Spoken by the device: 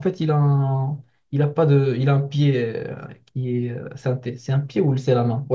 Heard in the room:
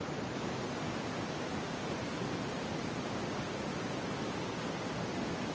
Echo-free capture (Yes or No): Yes